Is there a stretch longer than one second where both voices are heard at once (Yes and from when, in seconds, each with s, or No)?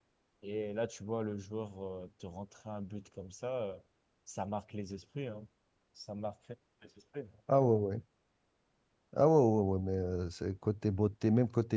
No